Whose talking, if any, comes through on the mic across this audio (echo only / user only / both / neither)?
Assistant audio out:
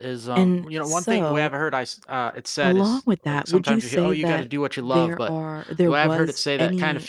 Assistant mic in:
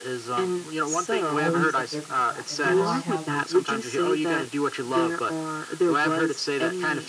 both